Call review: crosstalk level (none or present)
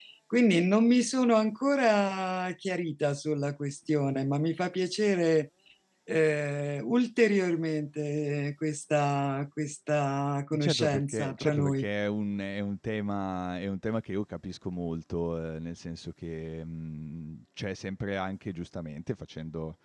present